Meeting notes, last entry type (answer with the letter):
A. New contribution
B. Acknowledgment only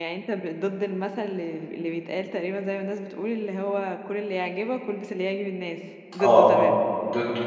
A